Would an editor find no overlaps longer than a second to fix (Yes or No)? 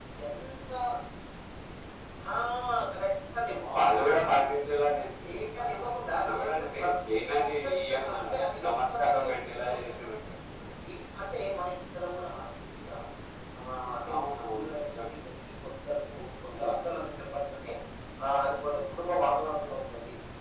No